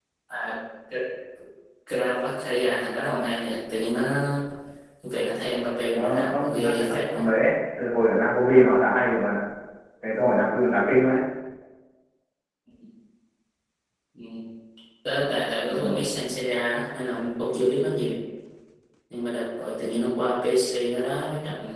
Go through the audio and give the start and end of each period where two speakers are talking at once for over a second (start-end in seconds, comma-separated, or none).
5.9-7.2